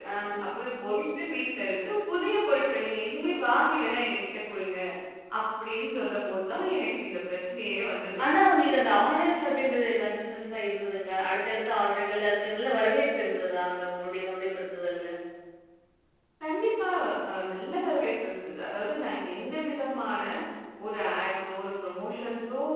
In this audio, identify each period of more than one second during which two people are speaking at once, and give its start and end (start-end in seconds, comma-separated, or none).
none